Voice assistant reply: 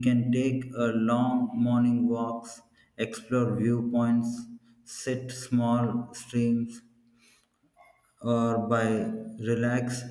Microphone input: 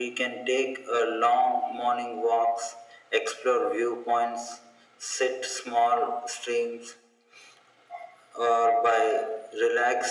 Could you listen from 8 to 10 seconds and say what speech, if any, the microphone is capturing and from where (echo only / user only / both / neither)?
echo only